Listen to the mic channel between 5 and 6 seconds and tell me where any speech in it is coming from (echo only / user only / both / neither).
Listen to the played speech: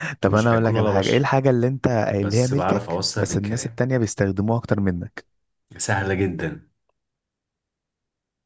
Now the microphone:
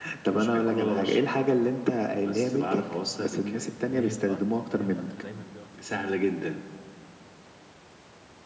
both